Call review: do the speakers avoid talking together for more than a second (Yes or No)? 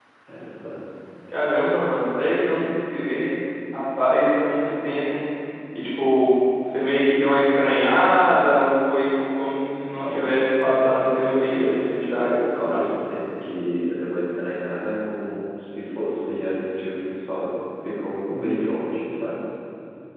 No